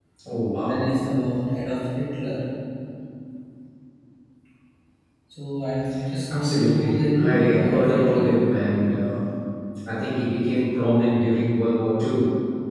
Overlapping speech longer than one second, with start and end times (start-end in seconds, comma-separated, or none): 6.3-8.2